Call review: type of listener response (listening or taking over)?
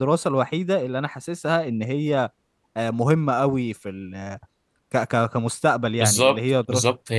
taking over